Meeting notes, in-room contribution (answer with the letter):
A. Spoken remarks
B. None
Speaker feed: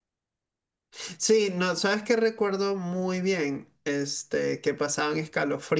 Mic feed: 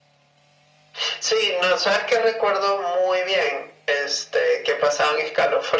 B